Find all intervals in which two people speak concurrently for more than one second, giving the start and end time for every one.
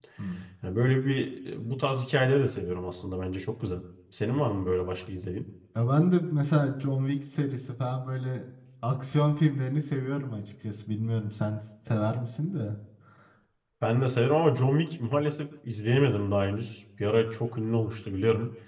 none

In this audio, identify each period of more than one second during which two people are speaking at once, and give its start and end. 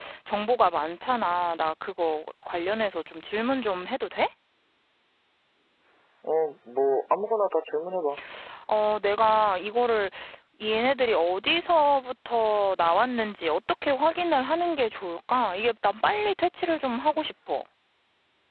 none

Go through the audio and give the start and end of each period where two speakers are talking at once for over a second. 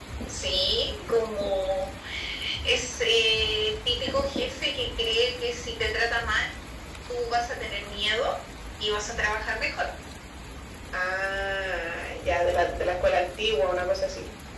none

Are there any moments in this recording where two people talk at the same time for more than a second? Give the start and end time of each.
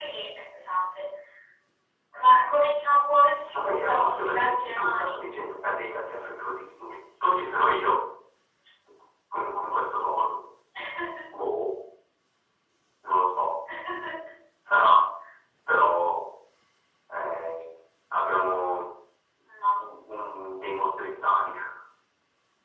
3.5-5.2

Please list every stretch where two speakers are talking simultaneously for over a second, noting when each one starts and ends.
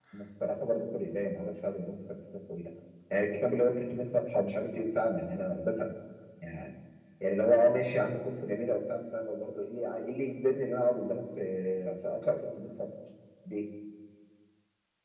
none

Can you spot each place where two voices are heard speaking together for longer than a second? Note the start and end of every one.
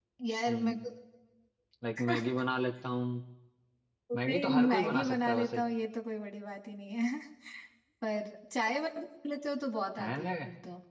4.2-5.6

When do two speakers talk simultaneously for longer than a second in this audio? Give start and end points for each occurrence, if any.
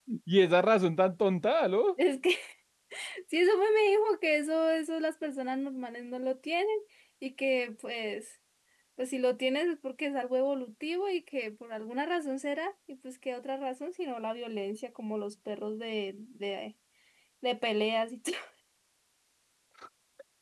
none

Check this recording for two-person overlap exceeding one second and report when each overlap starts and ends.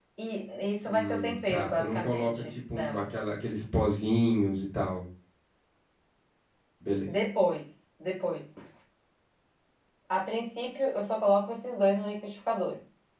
0.9-3.0

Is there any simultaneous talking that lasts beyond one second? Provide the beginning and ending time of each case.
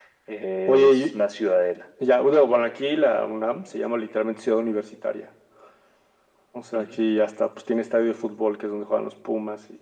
none

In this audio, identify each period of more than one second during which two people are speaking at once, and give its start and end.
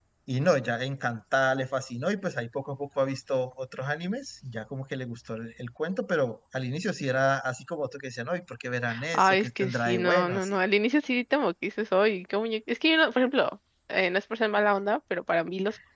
9.1-10.6

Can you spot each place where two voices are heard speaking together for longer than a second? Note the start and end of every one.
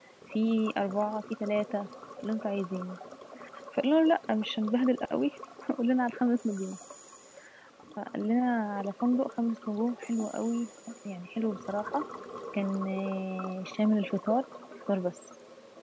none

